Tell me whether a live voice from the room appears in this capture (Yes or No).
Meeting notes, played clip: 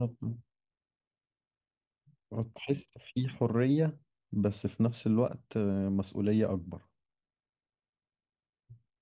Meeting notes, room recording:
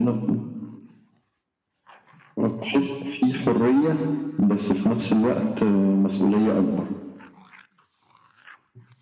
No